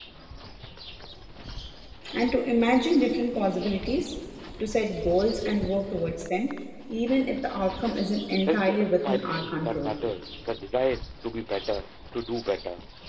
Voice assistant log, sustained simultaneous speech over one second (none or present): present